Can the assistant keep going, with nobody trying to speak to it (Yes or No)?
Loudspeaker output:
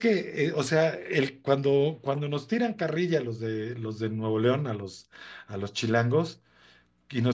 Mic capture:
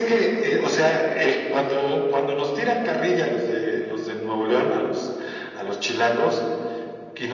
Yes